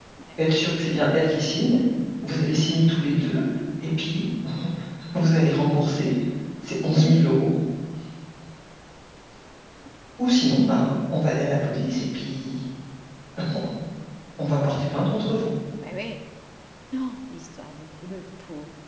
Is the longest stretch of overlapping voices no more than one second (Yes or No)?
Yes